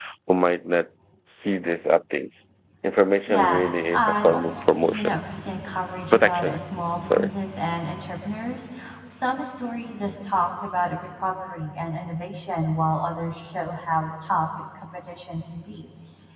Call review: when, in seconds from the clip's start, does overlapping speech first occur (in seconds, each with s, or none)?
3.3 s